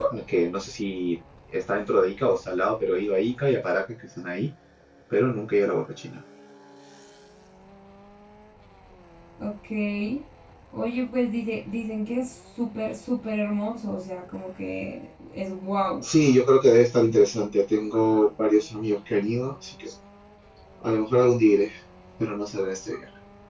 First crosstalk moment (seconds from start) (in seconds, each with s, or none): none